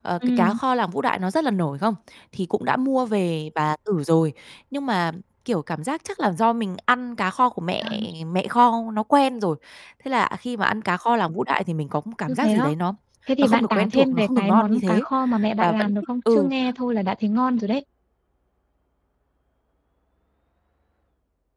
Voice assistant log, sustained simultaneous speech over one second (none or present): present